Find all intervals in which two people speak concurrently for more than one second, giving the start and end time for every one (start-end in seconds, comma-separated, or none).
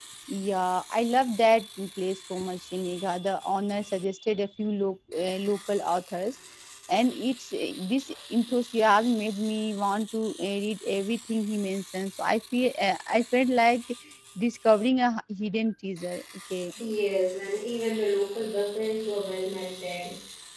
none